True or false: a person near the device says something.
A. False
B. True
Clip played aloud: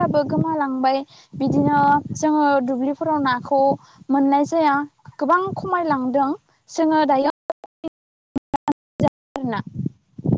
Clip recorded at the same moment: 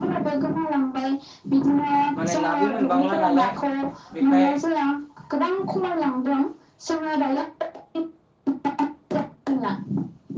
B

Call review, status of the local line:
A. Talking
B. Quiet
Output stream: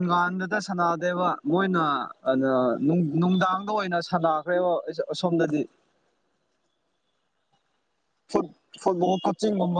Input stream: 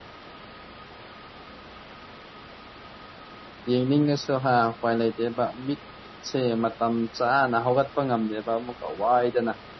A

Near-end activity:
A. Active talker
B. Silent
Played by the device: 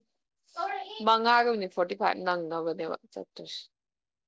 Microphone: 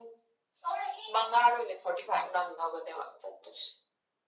B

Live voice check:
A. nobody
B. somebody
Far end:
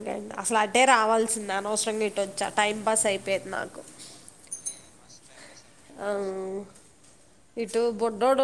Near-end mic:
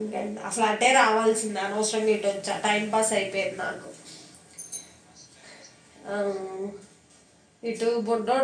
A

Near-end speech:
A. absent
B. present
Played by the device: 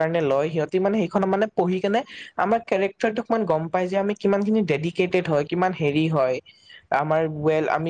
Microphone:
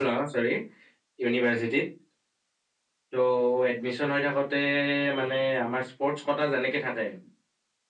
B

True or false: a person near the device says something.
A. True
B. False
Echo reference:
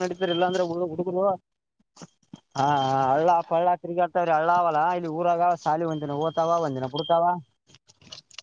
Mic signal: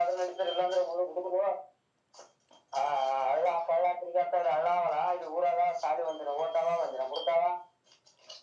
B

